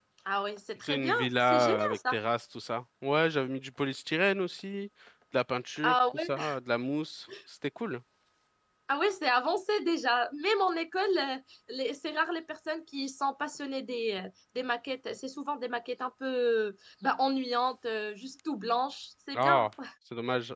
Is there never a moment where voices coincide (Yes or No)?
No